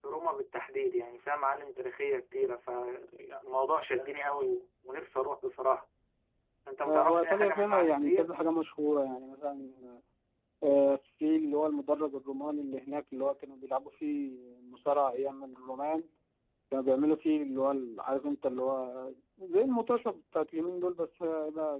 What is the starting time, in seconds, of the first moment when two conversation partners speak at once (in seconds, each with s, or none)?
6.9 s